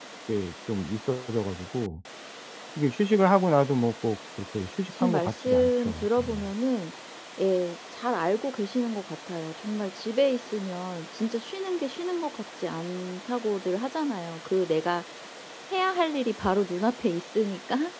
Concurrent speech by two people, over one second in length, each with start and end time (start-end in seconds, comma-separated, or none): 5.0-6.4